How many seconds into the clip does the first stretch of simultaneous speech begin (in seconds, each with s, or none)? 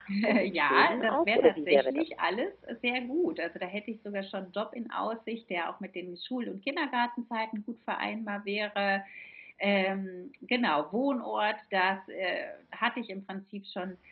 0.5 s